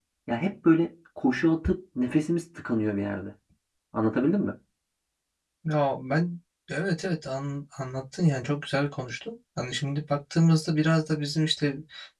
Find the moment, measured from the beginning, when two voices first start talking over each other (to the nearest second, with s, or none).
none